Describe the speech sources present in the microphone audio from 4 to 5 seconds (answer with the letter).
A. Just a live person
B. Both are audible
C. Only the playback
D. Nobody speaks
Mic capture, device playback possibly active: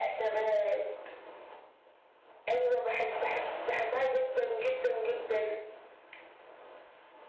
C